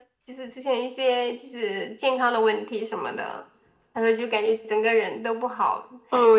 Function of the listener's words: taking over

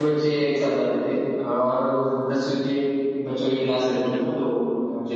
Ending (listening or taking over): listening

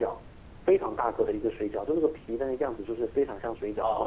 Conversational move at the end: taking over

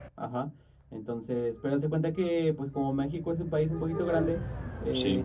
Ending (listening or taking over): listening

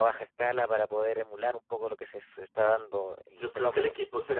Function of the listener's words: taking over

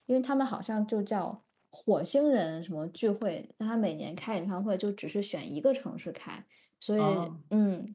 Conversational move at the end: listening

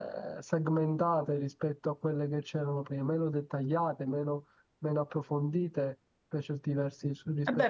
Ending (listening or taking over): taking over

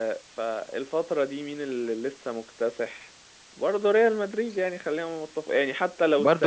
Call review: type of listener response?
taking over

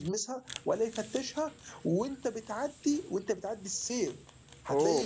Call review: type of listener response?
listening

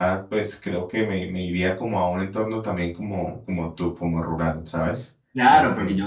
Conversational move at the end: taking over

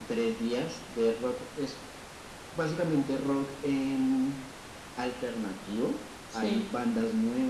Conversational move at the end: listening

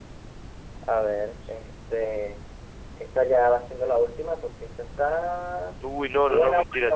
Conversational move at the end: taking over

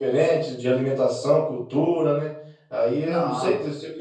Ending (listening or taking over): listening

